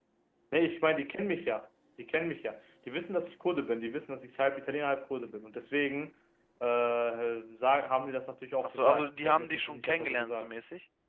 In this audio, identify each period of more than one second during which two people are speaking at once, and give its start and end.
8.6-10.5

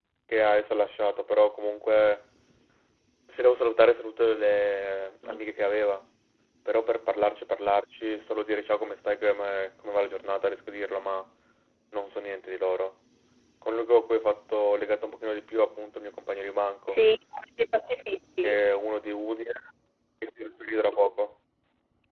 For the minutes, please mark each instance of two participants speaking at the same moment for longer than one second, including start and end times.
none

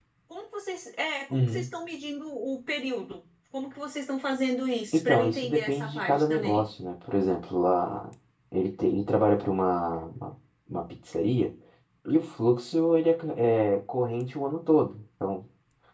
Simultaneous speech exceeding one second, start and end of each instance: 4.9-6.6

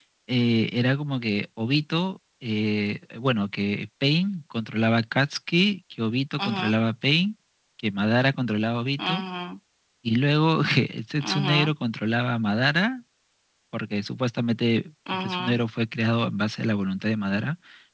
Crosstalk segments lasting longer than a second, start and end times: none

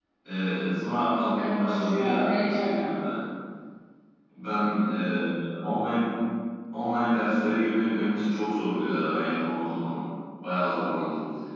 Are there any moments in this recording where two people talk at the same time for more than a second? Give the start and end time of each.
1.4-2.8

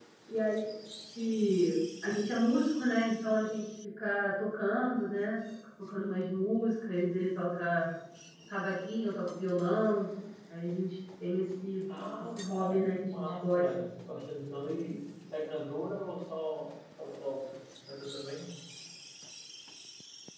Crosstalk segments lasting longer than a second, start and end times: 12.4-13.7

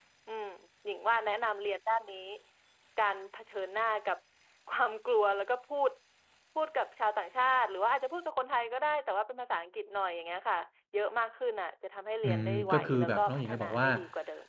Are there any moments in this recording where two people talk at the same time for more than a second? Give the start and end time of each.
12.2-13.9

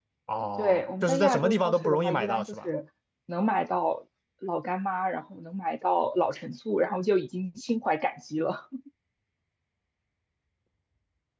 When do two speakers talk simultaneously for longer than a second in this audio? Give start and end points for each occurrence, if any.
0.6-2.7

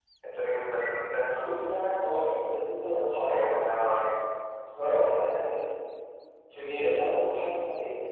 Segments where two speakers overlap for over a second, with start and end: none

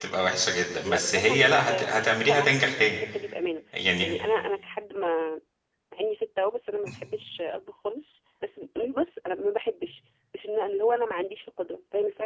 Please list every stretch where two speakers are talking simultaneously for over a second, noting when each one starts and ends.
0.8-3.0

